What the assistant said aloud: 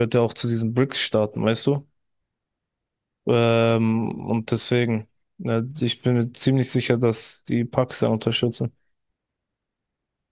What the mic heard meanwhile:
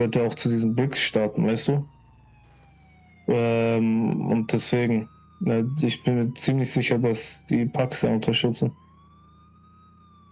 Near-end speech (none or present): none